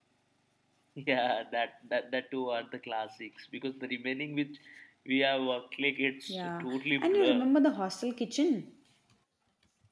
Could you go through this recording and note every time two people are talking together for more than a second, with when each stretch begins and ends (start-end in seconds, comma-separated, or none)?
6.3-7.5